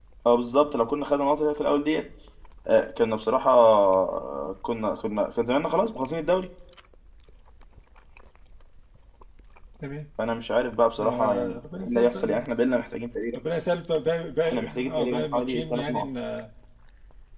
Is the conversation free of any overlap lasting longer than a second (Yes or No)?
No